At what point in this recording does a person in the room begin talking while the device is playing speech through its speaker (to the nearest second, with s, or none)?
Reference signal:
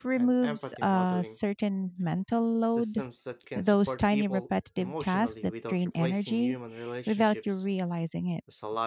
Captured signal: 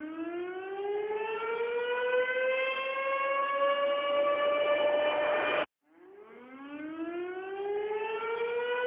none